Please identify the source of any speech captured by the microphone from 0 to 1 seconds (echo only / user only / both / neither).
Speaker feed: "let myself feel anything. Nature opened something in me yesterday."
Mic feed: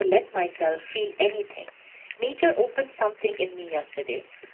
echo only